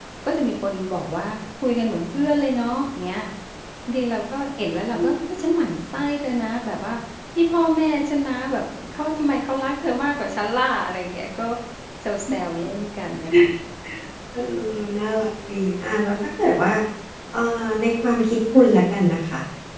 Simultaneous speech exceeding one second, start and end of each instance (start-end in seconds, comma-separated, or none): none